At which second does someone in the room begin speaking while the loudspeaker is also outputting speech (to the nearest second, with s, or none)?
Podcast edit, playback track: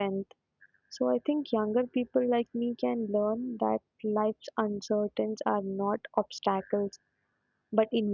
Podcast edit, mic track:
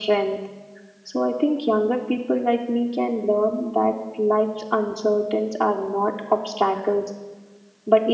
none